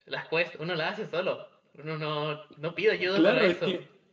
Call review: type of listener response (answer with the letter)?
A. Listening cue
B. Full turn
B